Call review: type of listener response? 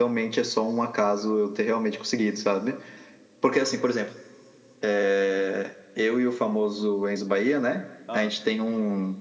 listening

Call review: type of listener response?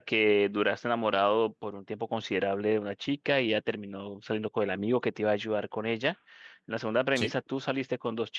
listening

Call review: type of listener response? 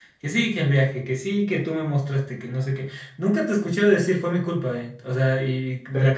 taking over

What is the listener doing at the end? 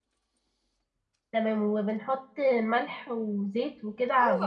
taking over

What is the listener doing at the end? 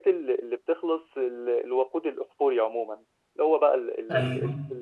listening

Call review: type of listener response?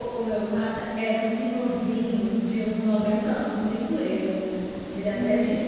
listening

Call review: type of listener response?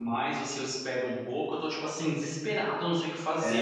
taking over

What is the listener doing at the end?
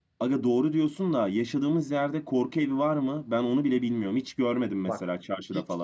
taking over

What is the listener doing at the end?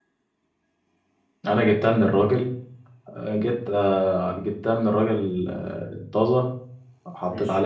listening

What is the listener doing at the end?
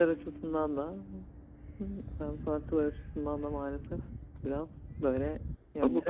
taking over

